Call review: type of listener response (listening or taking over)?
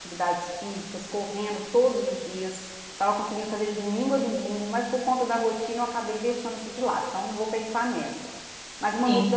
listening